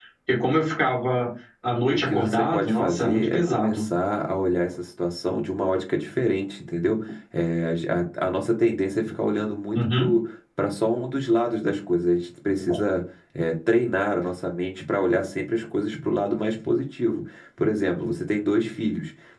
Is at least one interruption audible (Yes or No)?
Yes